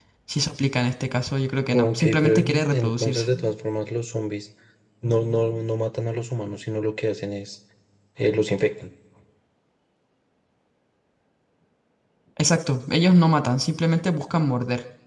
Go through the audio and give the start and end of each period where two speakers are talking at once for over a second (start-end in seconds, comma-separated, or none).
1.7-3.3